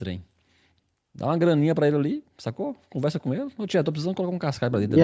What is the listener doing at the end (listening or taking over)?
taking over